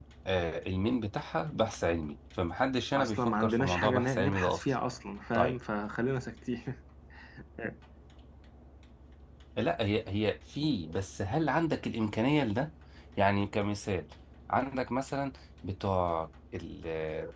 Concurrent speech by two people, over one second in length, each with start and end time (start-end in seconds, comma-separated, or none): 2.9-4.8